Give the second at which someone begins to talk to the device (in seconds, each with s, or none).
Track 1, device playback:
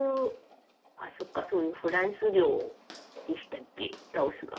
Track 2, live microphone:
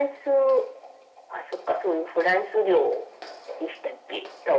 none